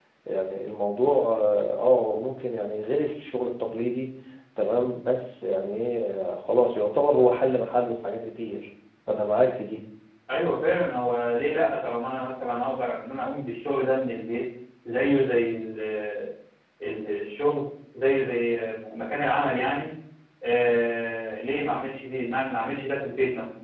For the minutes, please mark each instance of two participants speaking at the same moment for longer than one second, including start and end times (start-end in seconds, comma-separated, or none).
none